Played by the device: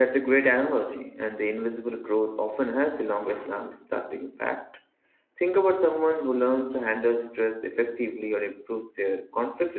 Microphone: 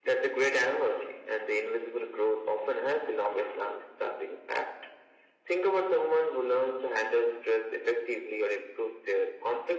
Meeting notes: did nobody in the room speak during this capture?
Yes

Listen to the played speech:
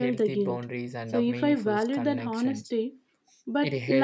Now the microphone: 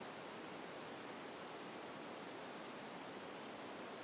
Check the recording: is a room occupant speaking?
No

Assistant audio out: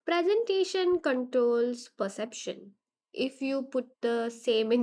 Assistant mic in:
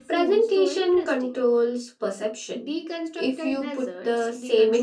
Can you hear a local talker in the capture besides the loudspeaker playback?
Yes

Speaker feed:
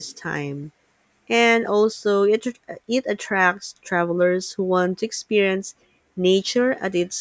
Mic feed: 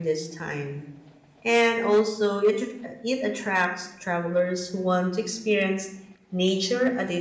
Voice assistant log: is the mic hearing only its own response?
Yes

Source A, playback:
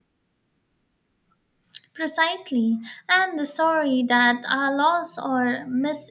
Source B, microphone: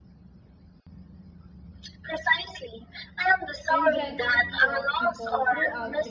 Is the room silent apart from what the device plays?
No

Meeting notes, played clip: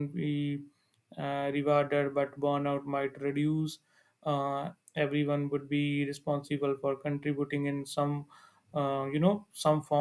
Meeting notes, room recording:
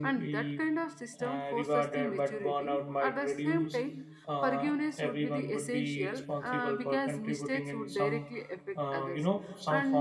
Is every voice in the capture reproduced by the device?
No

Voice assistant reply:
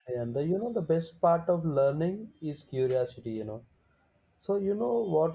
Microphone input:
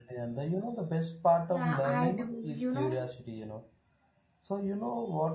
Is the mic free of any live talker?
No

